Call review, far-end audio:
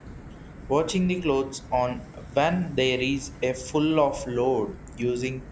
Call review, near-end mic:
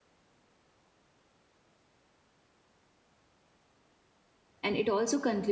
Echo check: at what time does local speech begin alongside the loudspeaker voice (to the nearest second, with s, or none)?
5 s